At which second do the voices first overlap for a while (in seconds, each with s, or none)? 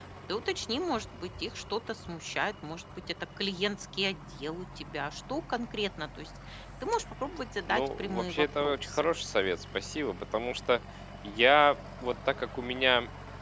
7.7 s